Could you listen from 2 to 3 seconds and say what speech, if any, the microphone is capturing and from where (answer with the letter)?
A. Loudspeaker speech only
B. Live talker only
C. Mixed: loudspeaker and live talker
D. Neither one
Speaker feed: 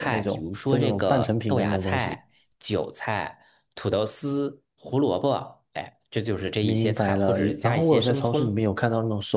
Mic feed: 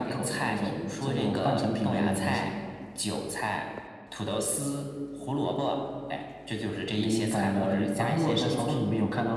A